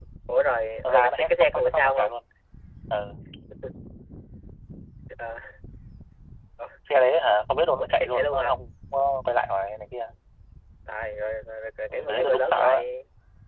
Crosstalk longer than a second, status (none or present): present